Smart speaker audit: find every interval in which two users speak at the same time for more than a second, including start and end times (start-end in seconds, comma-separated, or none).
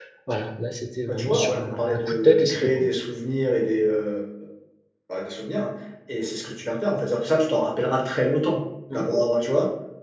1.1-2.9